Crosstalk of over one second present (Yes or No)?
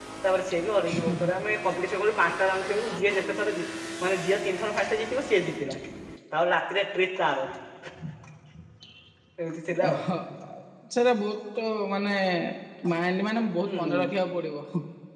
No